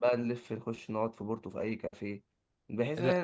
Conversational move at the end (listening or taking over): listening